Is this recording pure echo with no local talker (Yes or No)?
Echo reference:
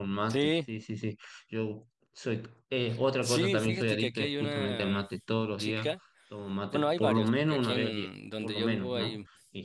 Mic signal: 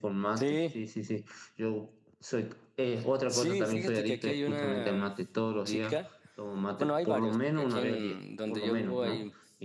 Yes